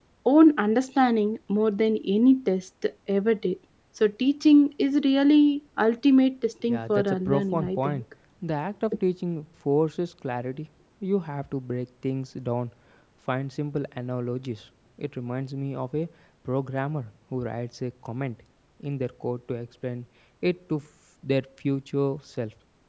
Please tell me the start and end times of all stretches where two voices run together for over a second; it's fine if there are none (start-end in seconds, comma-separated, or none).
6.7-8.0